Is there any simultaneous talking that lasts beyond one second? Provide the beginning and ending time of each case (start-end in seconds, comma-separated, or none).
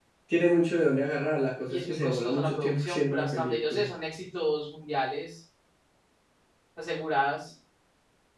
1.7-3.9